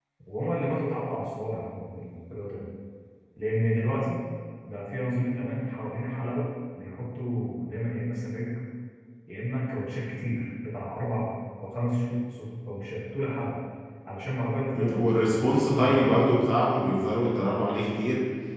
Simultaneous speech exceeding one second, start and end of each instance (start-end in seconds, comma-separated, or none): 14.7-16.1